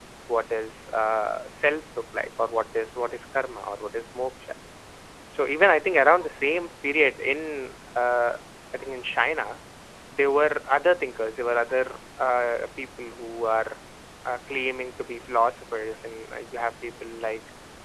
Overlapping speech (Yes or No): No